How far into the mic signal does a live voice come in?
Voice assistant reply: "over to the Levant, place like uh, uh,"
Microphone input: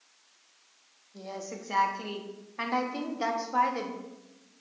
1.1 s

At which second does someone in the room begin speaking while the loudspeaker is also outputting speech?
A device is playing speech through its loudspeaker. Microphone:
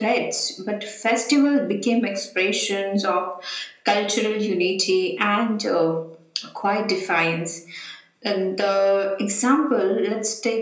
none

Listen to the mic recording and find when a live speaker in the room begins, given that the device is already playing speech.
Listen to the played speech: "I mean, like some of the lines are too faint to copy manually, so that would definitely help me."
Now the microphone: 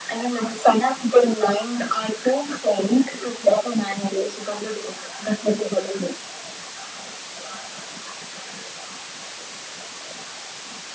none

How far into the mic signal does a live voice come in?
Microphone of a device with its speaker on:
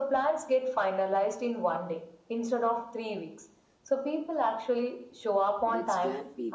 5.6 s

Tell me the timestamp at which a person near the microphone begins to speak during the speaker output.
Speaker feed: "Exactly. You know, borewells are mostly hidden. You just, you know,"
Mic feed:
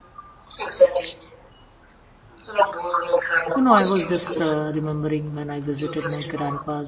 3.5 s

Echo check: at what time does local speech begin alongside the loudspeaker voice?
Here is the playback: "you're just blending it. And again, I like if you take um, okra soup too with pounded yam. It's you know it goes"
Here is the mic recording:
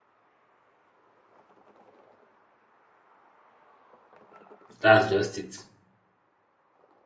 4.8 s

